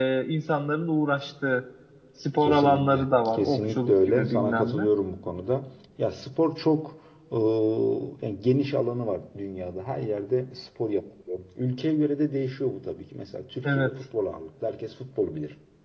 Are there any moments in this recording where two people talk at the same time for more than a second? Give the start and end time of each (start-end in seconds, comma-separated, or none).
2.4-4.8